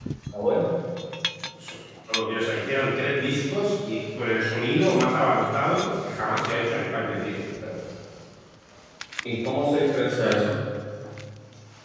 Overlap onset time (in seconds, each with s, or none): none